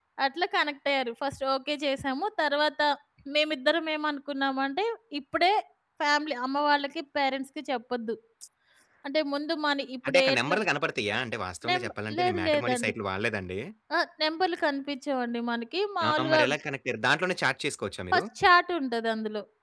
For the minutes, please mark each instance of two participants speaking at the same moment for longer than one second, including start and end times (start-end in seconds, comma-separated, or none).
11.7-12.9